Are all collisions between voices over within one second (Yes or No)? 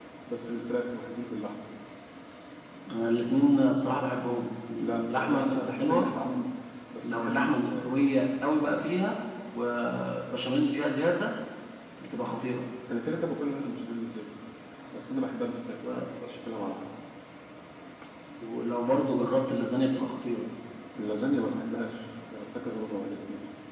No